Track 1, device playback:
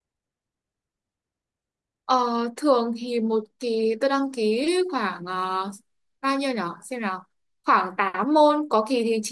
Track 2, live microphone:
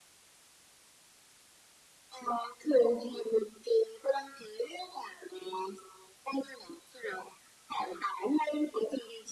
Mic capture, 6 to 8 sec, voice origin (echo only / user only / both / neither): echo only